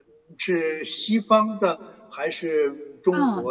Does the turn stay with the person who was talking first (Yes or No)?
No